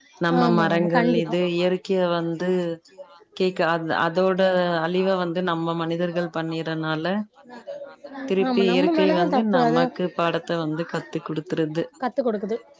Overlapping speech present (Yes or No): Yes